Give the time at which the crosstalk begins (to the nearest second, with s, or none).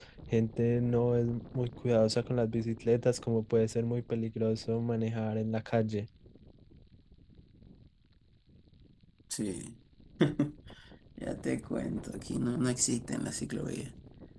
none